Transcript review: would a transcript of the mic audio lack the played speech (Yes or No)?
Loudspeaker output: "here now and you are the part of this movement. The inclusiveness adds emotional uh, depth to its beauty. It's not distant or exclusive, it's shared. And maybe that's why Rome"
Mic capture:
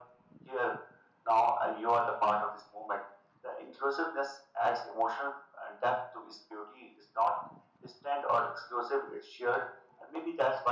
No